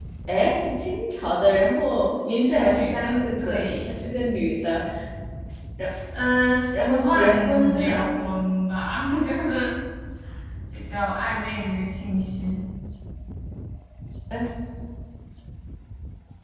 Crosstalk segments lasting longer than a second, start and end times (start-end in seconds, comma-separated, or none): 2.2-4.0, 6.7-8.0